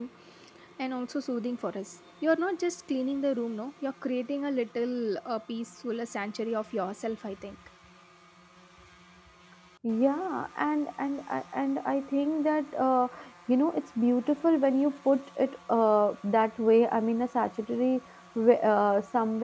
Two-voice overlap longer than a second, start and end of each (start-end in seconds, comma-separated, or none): none